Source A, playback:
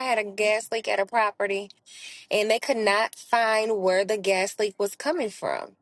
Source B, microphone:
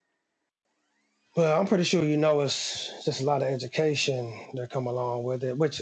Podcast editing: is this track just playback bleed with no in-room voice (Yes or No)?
No